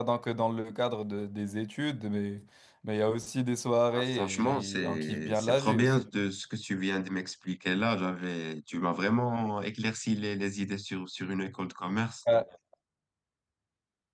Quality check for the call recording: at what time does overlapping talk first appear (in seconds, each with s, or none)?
3.9 s